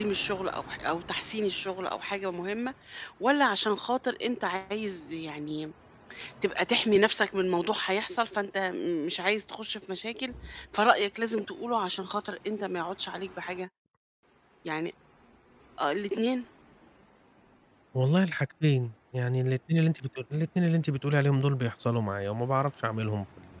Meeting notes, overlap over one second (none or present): none